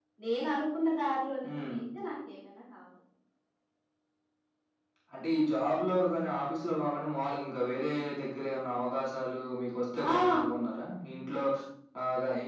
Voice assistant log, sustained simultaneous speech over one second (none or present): none